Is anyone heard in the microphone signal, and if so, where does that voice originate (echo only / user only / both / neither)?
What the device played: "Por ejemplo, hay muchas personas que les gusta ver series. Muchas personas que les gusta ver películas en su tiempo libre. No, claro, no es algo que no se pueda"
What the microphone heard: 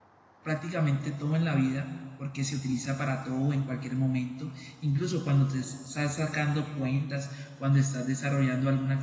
user only